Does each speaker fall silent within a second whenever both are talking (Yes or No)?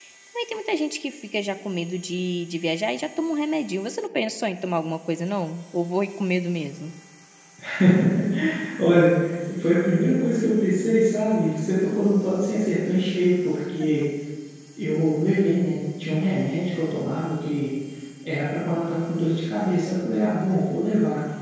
Yes